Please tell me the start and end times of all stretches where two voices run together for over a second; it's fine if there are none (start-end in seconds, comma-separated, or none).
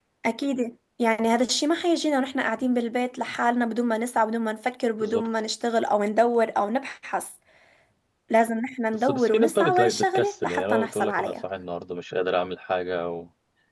9.1-11.3